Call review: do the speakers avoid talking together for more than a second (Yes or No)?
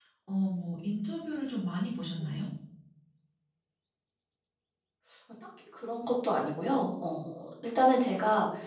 Yes